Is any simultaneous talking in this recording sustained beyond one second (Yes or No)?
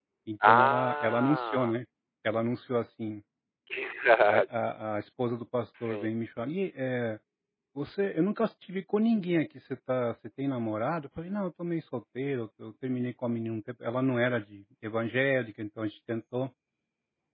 Yes